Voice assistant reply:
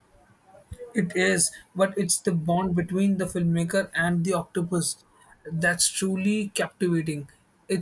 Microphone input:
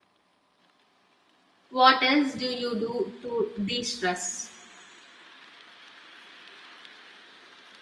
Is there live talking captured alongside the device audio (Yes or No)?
Yes